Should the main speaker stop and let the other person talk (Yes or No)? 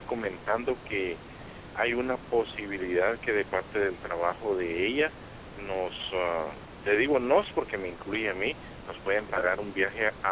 No